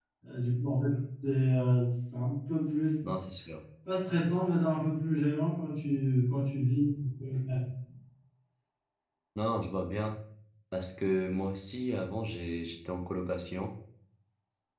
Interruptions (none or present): none